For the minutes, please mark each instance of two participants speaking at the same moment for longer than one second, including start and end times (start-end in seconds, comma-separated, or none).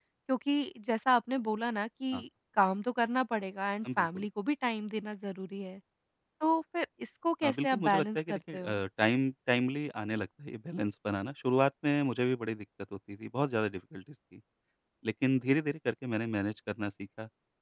7.4-8.8